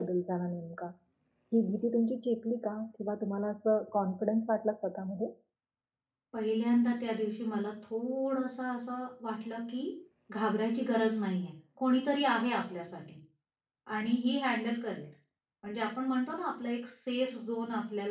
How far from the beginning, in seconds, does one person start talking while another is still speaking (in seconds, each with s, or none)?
none